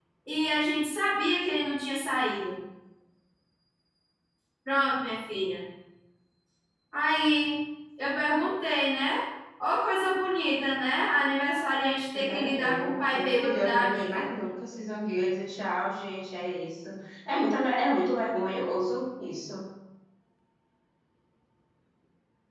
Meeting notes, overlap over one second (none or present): present